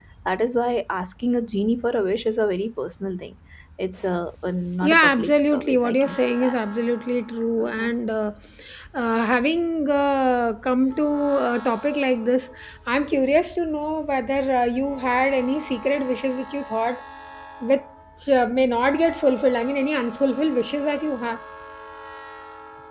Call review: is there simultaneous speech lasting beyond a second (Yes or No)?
Yes